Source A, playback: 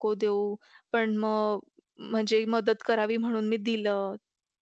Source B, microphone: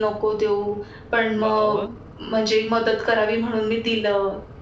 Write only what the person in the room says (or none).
वाह, वाह!